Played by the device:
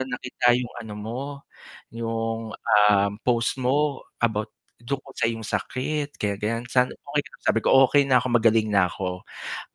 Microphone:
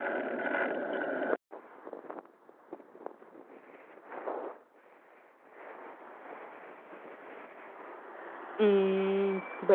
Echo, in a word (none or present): none